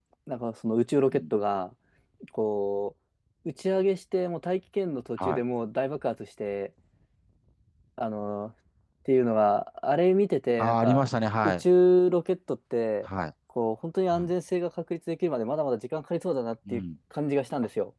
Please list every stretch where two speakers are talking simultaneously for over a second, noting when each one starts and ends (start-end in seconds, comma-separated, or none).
none